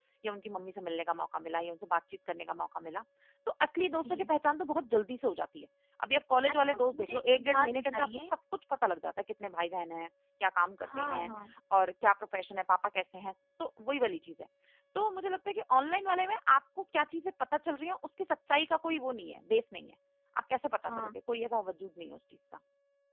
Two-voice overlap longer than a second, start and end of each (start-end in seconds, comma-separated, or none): 6.5-8.1